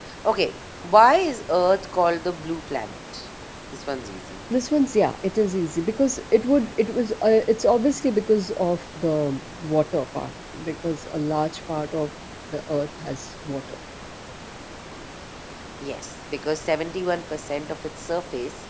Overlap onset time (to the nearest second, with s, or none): none